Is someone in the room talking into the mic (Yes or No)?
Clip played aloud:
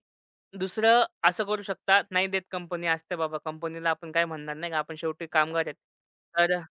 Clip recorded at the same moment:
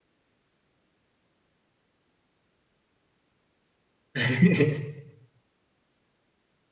Yes